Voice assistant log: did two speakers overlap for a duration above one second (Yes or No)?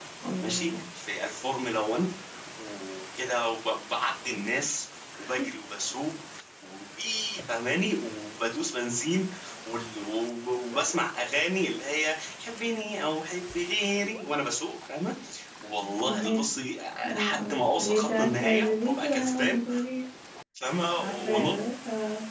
Yes